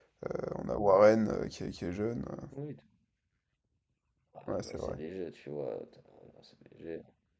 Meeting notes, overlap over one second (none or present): none